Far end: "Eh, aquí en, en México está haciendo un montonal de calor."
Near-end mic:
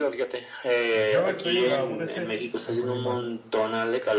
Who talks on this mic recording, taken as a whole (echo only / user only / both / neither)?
both